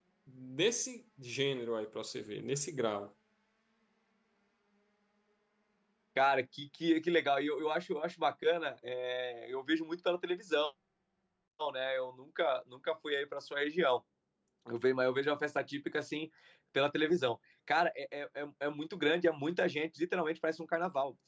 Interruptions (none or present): none